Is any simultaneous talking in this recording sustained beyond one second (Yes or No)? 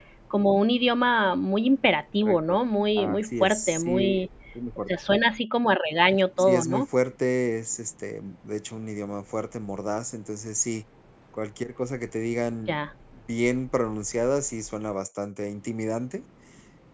Yes